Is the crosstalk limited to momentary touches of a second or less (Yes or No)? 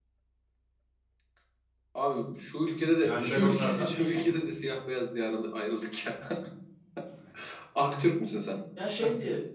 No